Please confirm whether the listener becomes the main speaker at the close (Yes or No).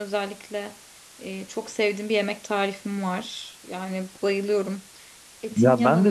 Yes